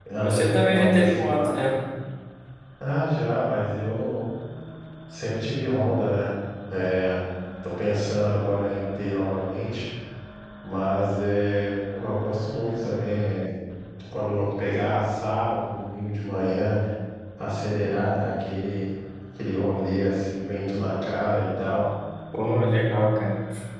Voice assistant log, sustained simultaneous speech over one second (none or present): present